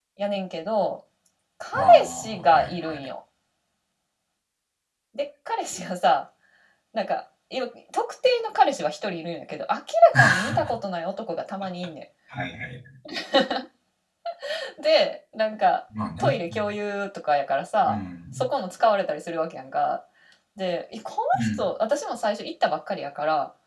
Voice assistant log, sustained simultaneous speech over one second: present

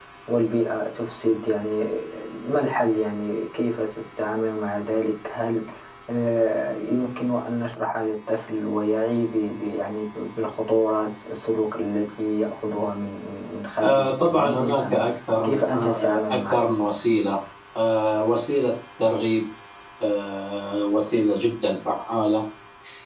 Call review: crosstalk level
present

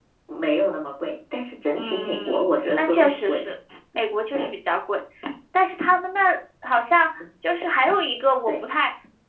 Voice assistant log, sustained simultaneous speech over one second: present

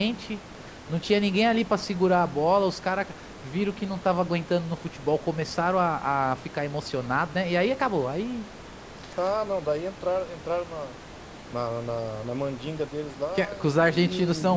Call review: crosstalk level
present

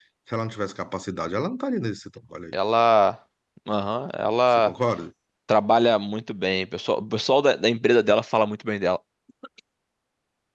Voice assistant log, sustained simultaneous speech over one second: none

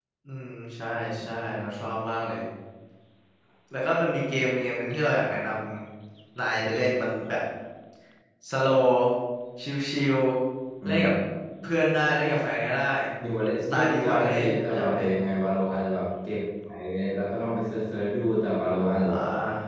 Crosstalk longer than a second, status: present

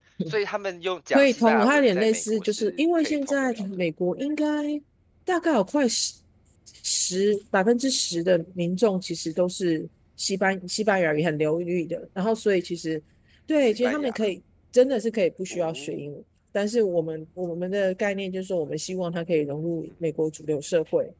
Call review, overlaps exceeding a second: present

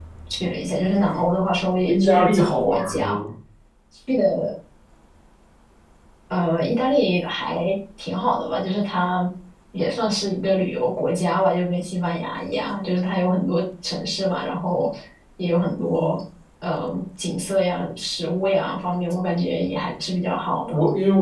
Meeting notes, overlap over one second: present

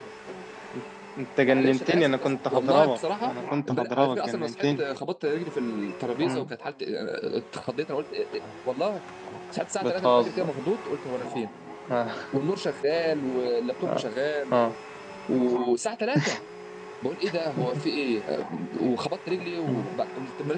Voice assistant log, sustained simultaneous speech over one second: present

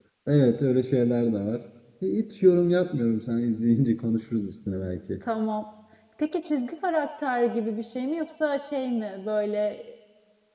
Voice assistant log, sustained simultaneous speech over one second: none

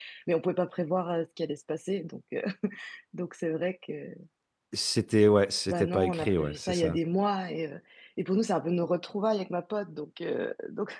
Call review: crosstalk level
present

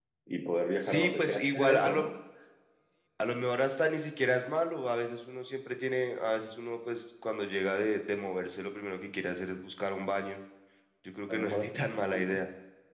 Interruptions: present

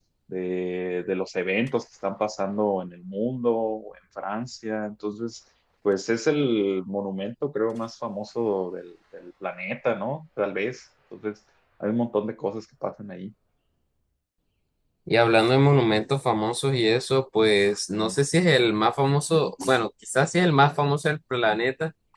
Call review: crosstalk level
none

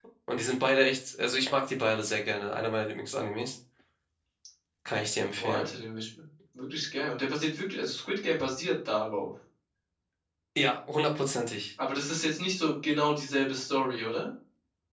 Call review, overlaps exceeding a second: none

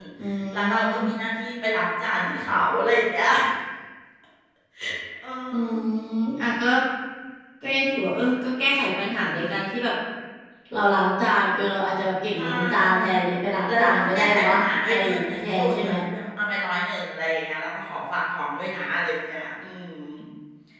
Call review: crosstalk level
present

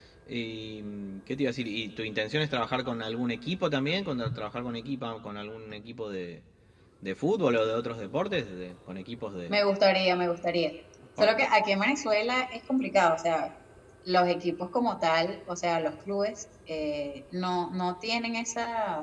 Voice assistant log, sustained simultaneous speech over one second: none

